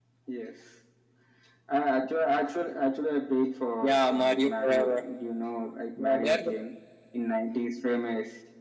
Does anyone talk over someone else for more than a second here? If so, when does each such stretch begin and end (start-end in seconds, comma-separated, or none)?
3.8-5.0